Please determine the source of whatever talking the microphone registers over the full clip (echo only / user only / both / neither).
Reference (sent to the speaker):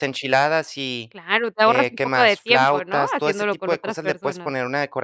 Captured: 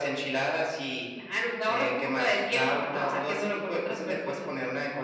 echo only